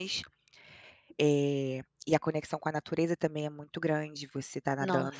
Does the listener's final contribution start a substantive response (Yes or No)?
No